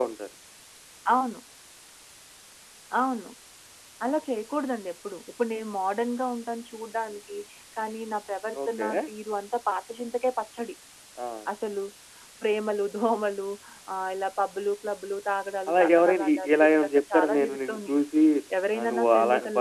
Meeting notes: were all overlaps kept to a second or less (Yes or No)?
No